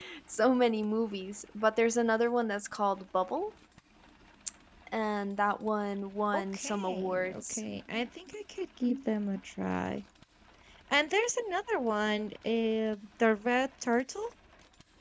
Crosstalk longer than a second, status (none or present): present